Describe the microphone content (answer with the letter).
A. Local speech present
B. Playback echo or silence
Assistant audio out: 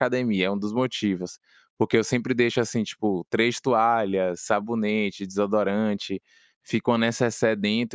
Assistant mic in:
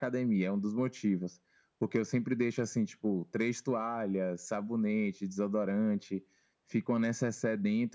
B